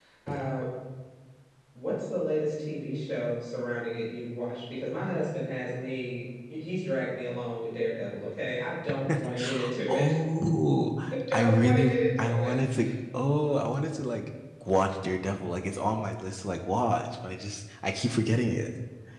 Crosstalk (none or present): present